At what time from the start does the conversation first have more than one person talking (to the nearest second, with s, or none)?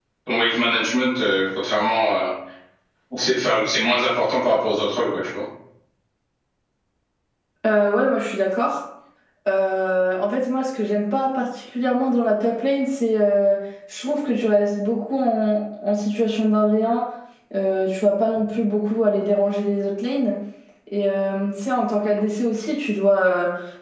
none